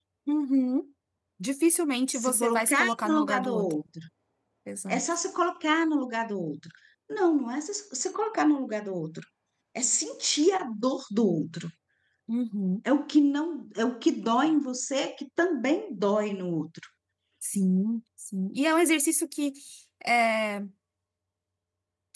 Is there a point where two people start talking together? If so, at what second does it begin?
2.2 s

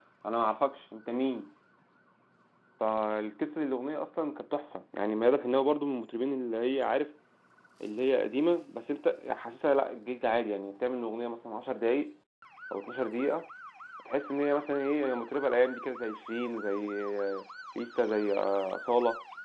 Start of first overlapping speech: none

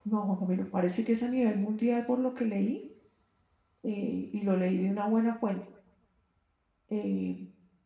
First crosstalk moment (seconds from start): none

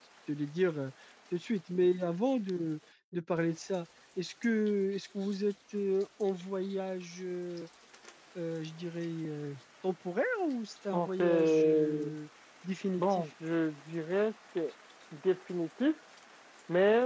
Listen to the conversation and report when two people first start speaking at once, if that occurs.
10.9 s

